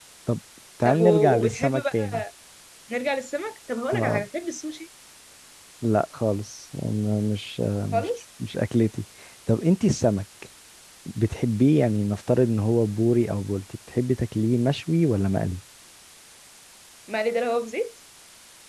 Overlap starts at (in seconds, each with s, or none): 0.8 s